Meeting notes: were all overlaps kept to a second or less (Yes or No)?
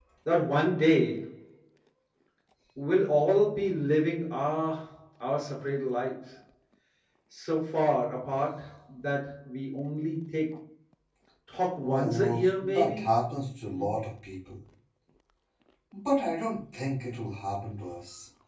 No